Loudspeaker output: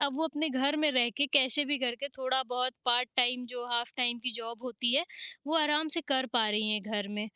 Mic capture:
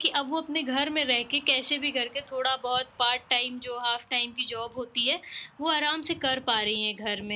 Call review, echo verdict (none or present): present